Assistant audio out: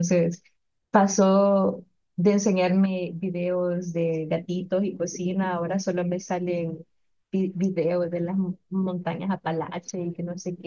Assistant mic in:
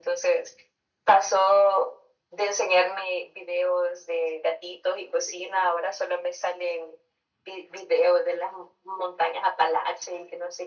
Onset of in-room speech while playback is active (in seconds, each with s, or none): none